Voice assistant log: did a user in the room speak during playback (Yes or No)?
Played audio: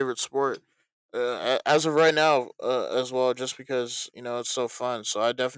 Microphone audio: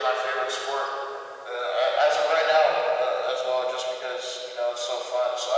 No